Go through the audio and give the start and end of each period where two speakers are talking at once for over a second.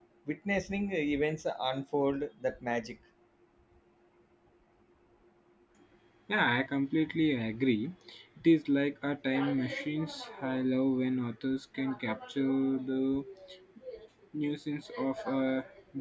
none

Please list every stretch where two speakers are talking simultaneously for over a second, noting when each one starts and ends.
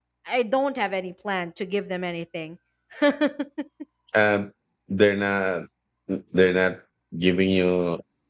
none

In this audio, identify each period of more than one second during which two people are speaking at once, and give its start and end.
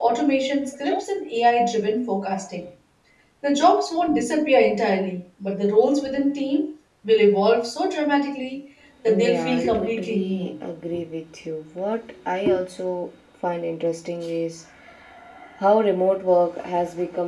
9.1-10.5

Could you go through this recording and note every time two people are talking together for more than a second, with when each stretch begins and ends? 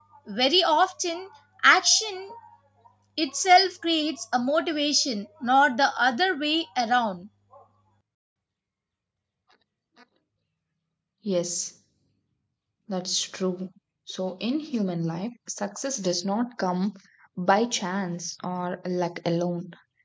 none

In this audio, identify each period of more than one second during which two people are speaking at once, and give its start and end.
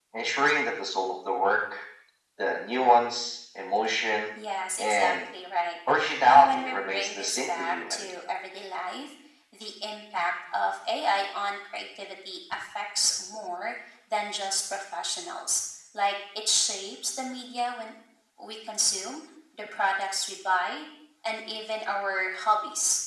6.3-8.1

